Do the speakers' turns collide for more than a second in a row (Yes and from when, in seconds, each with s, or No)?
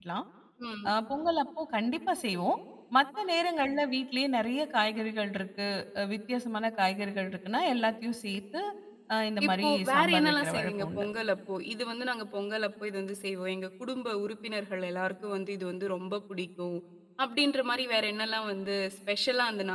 Yes, from 9.5 s